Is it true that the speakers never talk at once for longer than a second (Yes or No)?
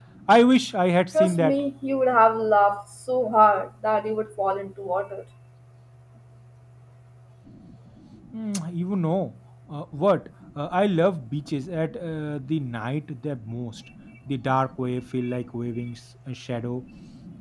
Yes